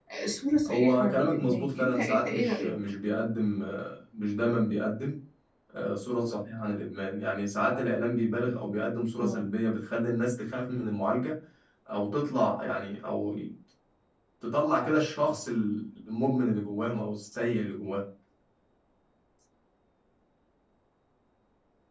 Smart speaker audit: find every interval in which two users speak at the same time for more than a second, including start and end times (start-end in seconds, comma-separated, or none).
0.7-2.8